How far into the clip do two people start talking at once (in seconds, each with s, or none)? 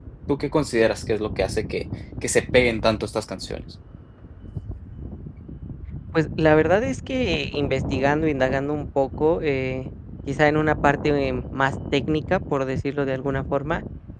none